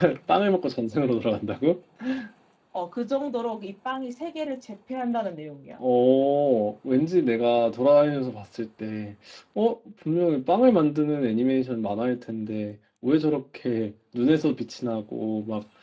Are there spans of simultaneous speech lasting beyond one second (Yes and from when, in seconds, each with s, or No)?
No